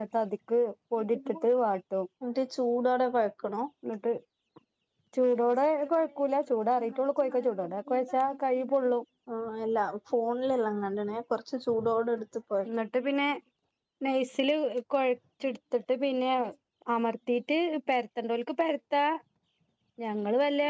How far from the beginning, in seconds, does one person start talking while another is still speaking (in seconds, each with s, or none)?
none